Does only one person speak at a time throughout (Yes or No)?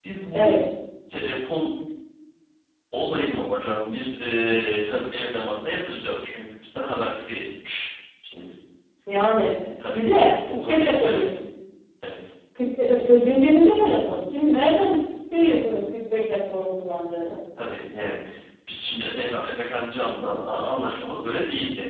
No